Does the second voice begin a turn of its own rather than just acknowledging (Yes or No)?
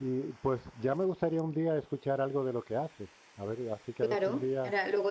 Yes